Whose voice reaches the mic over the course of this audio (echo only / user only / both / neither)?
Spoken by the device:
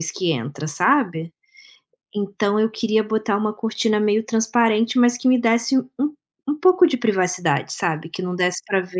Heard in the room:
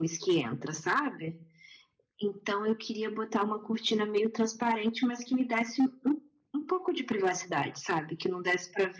echo only